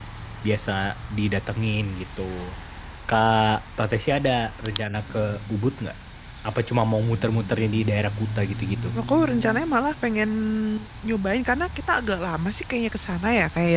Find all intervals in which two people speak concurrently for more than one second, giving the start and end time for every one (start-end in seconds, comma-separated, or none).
none